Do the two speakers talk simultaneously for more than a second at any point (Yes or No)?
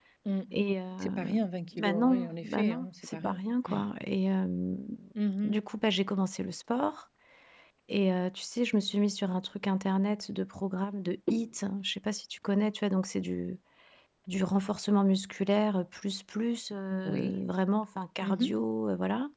Yes